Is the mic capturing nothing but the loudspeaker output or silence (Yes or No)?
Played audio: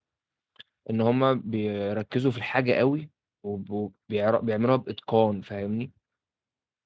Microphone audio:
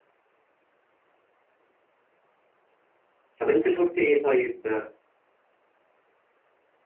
No